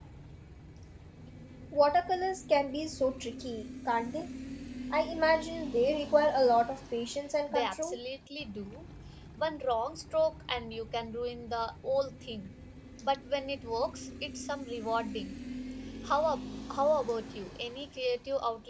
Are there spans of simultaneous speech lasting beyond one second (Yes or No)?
No